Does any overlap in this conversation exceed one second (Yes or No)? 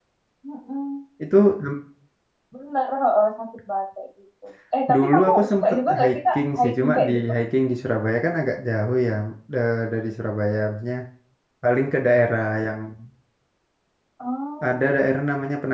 Yes